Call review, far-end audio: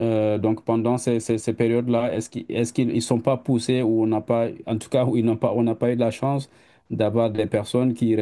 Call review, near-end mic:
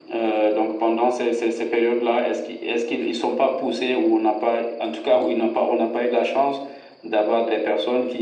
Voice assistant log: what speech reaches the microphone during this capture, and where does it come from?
echo only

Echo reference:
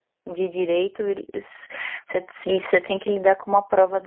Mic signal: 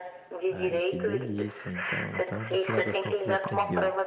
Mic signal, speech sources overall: both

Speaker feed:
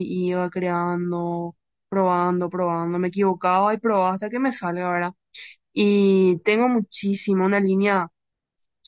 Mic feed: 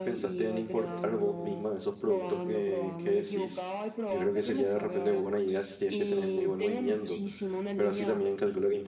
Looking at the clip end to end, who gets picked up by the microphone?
both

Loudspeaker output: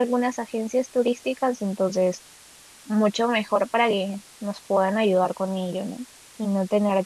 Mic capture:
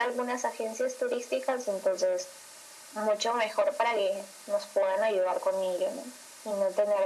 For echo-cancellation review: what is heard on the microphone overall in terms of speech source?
echo only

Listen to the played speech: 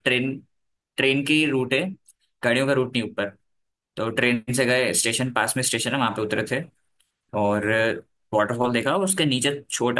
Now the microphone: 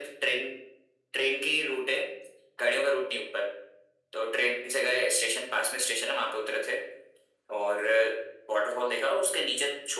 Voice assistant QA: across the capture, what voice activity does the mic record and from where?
echo only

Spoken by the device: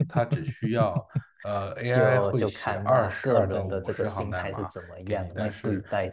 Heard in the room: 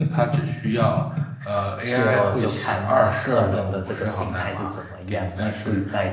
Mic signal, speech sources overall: echo only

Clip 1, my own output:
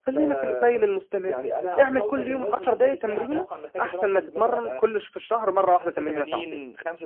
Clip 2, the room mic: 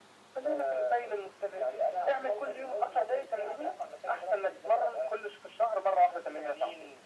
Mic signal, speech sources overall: echo only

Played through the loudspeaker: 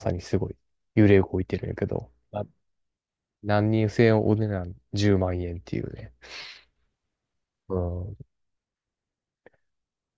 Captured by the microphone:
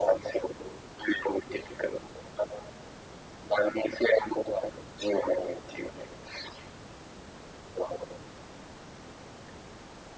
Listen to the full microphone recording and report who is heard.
echo only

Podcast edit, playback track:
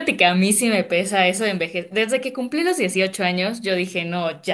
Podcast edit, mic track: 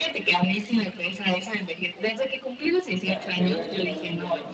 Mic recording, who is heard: both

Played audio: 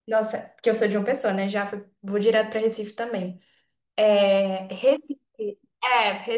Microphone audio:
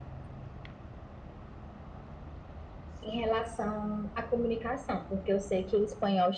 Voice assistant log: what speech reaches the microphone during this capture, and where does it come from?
user only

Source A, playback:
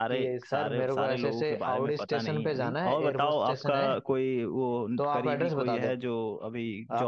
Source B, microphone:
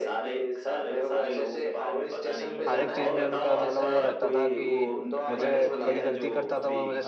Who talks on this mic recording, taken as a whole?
both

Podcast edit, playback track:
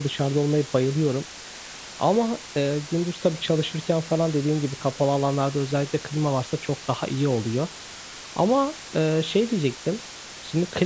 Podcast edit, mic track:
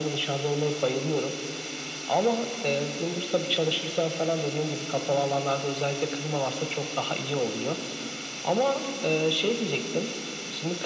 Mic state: echo only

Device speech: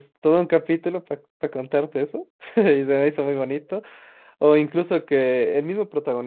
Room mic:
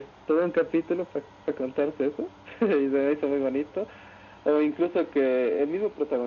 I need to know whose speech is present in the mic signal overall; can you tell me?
echo only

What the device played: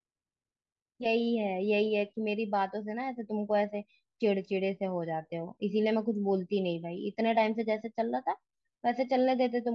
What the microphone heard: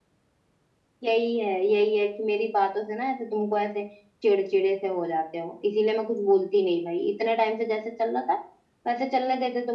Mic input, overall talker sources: echo only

